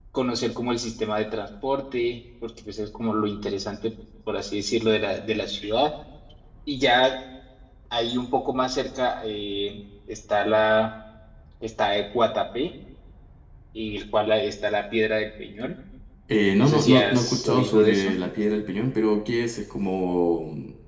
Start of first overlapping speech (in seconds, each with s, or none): 16.6 s